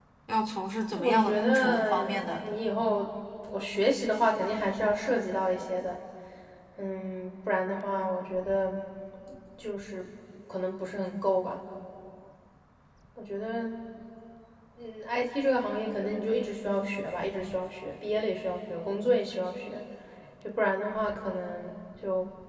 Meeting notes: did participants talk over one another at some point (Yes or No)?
Yes